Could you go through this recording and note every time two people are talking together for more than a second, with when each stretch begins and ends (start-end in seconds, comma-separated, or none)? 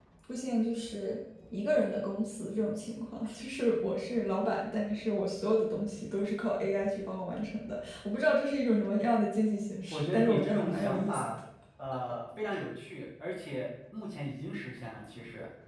9.9-11.2